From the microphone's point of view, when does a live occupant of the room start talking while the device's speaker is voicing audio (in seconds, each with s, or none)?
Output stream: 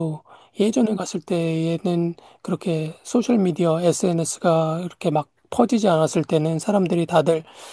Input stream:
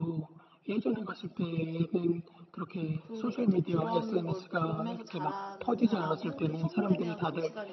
3.0 s